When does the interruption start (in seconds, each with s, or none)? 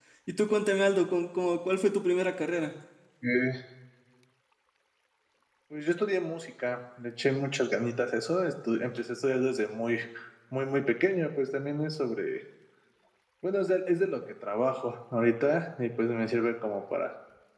none